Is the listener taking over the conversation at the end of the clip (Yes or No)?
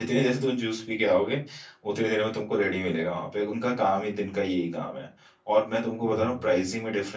No